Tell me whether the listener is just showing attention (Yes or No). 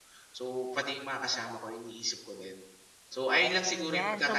No